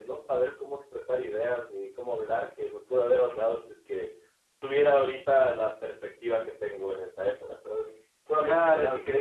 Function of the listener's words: taking over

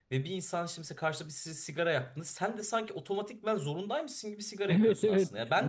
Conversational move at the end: taking over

